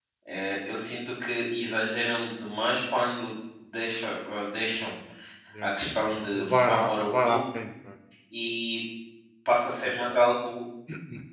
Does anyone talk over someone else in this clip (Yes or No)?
Yes